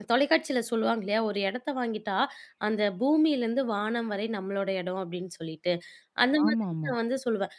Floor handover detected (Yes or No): No